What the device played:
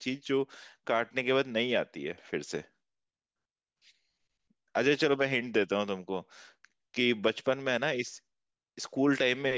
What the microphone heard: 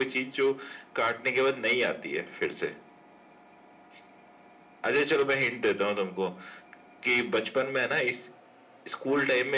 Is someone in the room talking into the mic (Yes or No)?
No